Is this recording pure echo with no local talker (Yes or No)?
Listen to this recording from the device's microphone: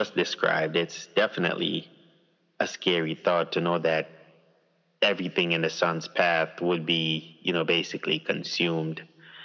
Yes